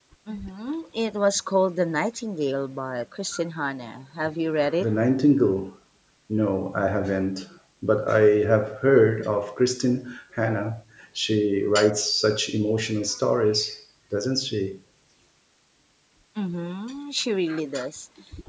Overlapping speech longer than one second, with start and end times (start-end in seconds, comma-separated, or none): none